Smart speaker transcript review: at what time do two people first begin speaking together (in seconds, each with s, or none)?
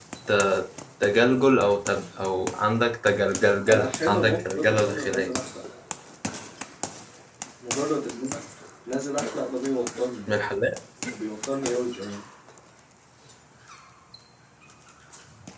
3.7 s